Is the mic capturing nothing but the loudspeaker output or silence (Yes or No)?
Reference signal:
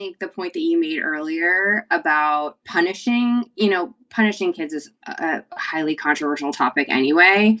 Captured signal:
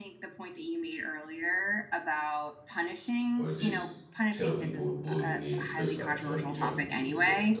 No